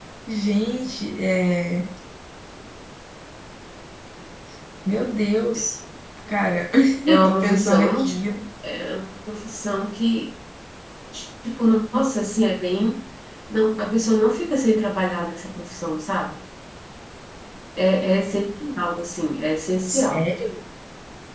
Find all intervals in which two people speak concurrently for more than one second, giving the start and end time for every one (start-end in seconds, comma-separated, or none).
7.1-8.3